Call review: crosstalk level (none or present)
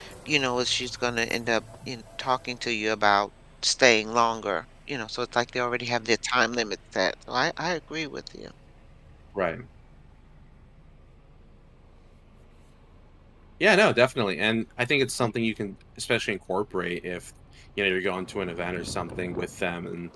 none